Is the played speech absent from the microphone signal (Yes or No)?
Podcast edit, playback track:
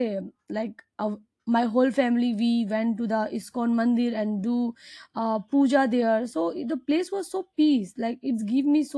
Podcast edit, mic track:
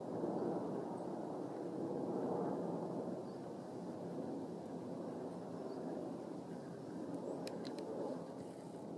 Yes